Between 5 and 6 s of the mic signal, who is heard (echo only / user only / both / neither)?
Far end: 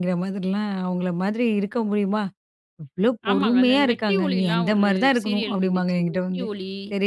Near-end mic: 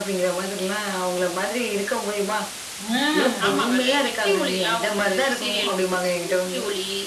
echo only